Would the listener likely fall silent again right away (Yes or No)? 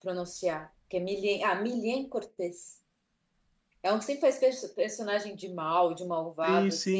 No